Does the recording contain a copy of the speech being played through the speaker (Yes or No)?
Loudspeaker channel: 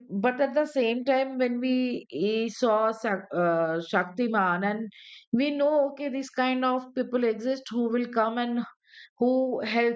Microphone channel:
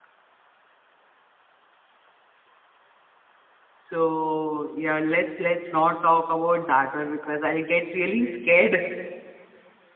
No